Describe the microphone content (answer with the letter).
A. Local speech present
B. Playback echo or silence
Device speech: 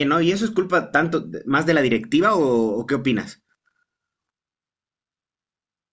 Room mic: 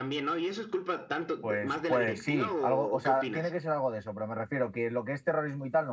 A